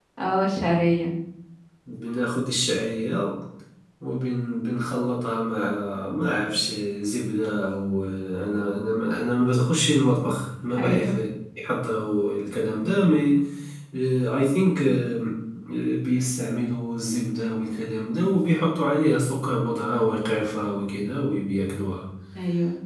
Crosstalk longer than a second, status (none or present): none